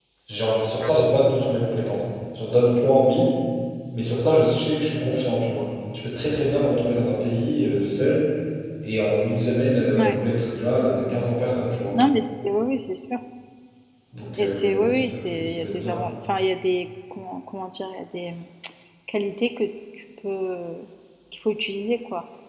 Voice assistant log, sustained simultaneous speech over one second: present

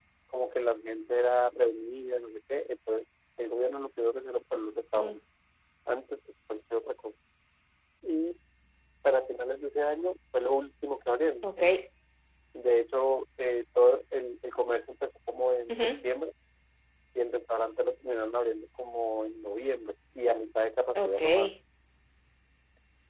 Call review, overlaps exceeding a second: none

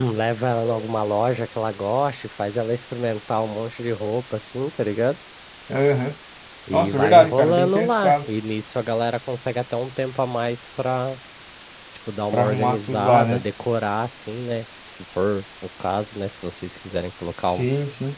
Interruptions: present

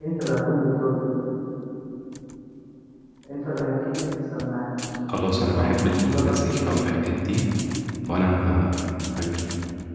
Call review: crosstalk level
present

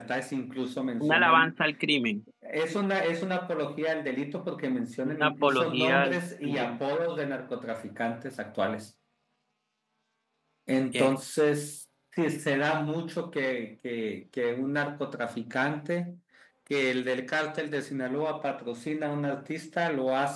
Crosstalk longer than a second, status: present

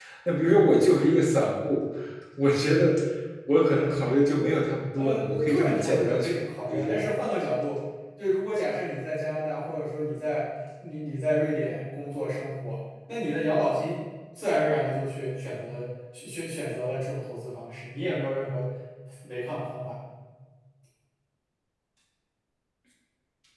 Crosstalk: present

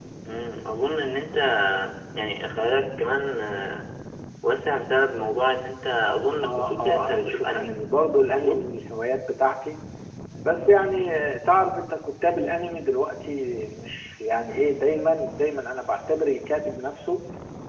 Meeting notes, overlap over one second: present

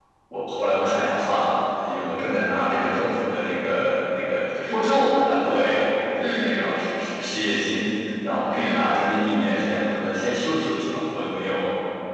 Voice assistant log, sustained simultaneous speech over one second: none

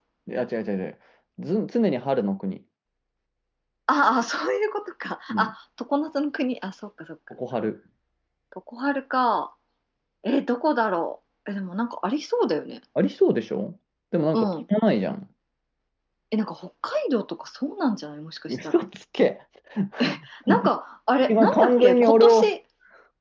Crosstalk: present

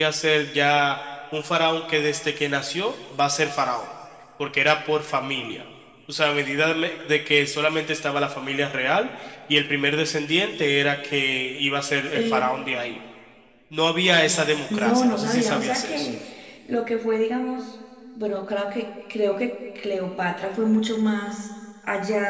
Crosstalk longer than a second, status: present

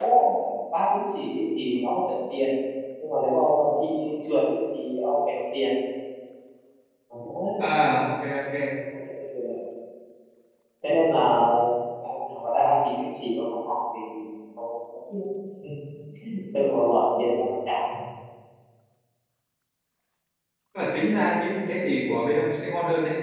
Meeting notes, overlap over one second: none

